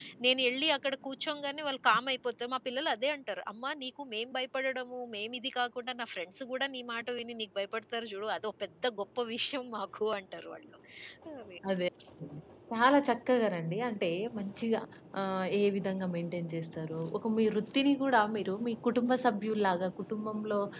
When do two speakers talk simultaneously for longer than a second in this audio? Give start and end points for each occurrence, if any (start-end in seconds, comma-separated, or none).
none